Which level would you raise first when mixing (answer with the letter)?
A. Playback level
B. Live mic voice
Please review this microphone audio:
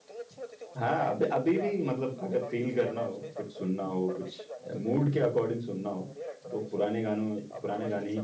A